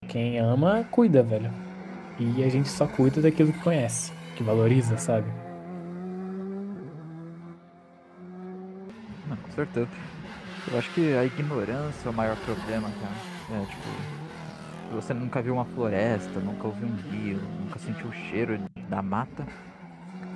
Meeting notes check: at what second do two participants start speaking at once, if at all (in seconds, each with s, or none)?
none